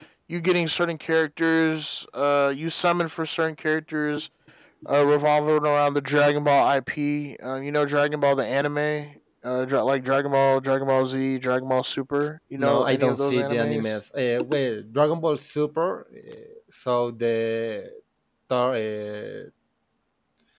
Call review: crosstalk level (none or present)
present